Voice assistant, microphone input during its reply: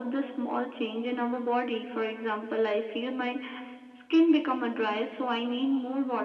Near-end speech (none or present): none